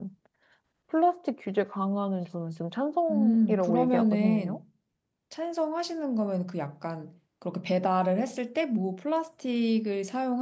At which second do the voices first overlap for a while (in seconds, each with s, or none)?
3.1 s